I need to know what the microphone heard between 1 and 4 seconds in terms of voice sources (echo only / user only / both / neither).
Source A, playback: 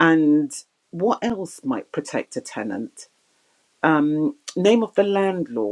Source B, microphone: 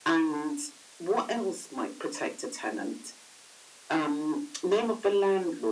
echo only